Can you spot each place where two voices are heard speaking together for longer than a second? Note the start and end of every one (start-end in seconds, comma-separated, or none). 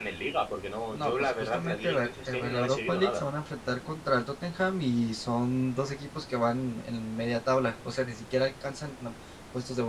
0.9-3.2